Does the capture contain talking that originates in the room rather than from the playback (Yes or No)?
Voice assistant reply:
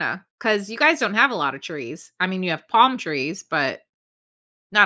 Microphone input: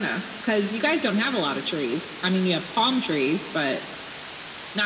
No